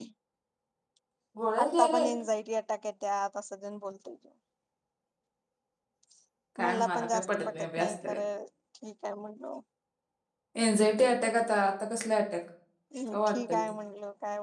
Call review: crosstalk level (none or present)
present